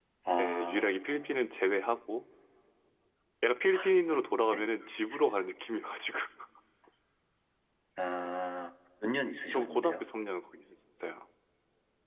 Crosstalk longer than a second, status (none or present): none